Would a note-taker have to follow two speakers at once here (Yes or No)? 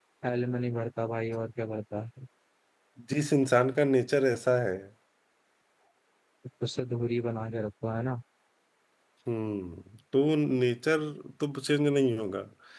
No